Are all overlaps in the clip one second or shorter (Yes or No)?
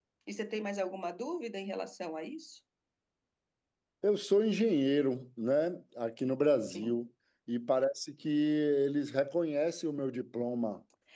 Yes